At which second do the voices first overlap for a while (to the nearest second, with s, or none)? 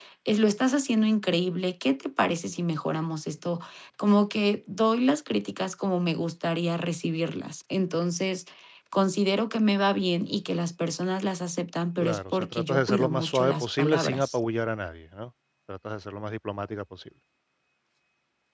12 s